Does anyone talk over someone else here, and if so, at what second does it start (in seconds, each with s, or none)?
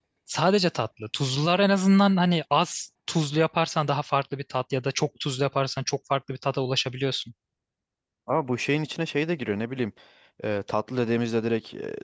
none